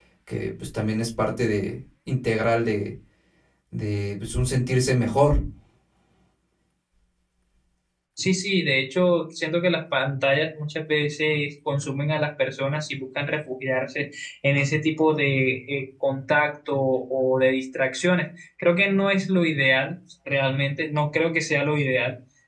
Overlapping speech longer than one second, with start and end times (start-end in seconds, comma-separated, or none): none